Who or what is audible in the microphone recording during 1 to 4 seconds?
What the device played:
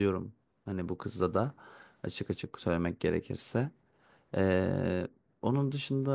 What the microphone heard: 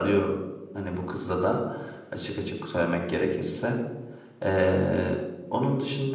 echo only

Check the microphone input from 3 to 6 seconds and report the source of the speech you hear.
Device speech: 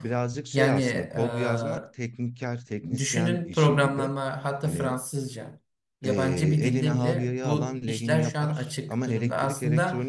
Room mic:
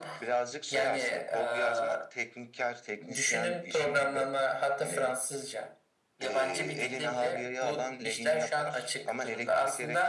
echo only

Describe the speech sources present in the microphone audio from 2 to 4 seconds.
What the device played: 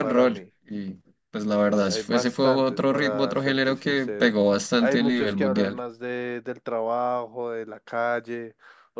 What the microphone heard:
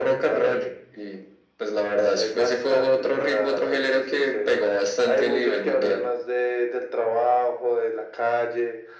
echo only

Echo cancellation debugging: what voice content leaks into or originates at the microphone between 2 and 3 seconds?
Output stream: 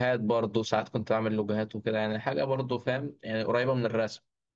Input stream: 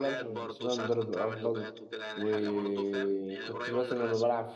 both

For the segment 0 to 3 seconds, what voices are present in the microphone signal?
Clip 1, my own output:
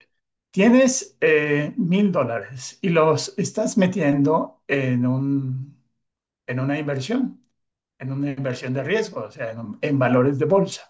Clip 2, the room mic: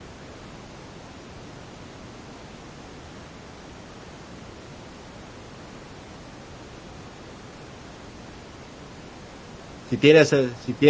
neither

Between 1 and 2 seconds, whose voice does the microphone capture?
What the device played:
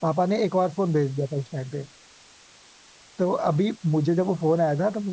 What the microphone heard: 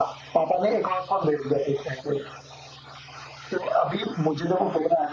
echo only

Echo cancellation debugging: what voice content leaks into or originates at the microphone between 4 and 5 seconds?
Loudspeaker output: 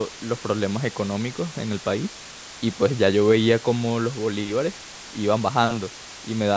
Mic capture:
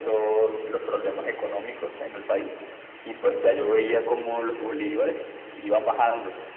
echo only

